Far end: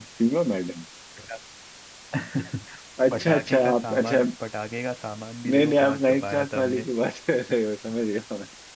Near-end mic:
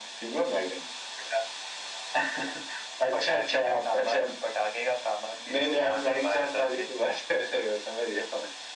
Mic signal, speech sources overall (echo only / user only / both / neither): echo only